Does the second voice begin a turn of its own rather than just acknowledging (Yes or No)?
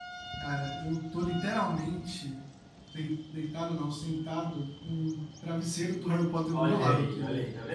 Yes